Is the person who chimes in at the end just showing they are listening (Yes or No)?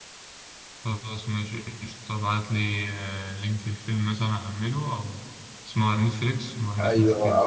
No